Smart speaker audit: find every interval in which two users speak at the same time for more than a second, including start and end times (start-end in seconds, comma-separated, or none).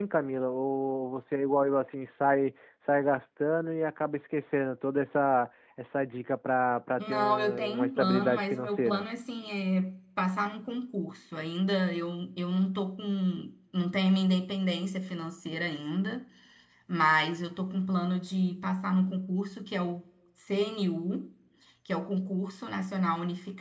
7.0-9.1